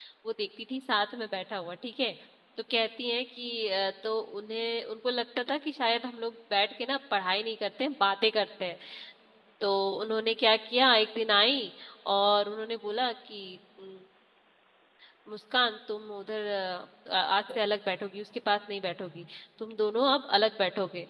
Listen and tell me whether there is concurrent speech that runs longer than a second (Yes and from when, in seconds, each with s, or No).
No